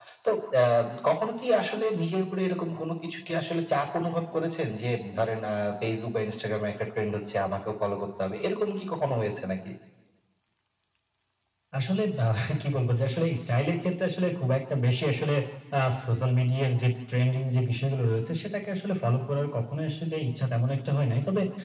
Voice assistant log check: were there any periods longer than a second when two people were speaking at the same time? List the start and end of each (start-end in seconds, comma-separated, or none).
none